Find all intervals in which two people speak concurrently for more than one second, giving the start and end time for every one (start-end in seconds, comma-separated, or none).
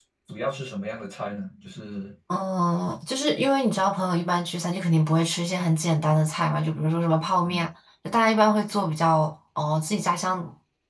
none